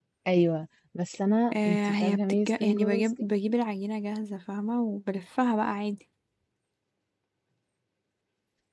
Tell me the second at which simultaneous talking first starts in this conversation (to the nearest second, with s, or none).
2 s